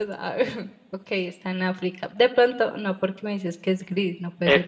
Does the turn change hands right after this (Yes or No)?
Yes